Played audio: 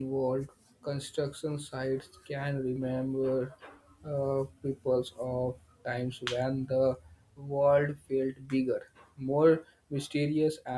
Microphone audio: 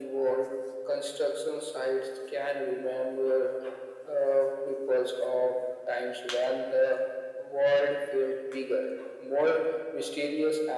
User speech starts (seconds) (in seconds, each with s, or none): none